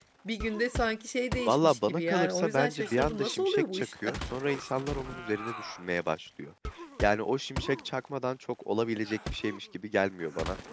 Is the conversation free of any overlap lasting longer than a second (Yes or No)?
No